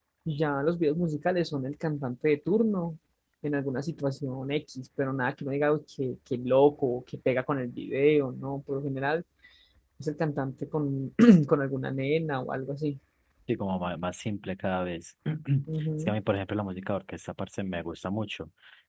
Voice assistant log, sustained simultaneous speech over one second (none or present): none